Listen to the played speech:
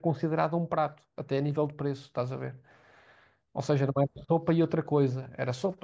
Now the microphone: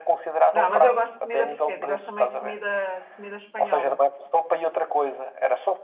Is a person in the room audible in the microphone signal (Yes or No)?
Yes